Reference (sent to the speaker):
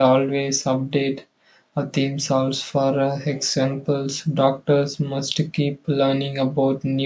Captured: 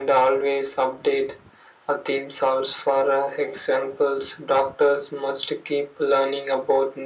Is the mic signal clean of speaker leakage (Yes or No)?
No